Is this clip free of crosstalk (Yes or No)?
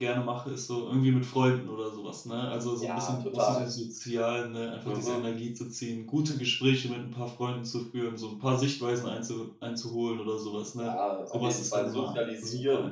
No